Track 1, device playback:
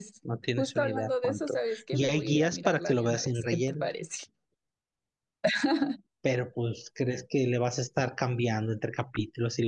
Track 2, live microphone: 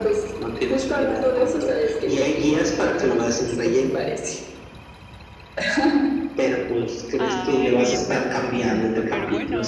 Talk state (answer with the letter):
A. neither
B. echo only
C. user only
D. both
D